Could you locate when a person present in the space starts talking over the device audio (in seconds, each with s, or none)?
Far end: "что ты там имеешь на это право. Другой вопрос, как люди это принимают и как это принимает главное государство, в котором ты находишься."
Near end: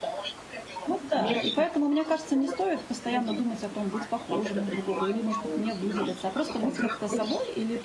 0.8 s